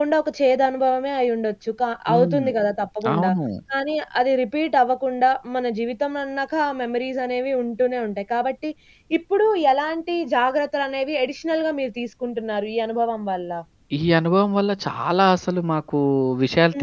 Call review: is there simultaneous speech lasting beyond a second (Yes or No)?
No